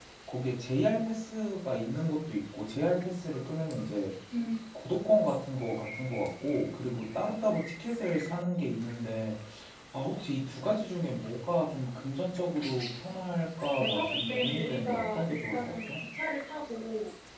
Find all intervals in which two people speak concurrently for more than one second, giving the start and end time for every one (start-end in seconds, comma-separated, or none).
13.8-16.0